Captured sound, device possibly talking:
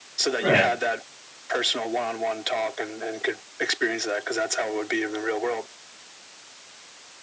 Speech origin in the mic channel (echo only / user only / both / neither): both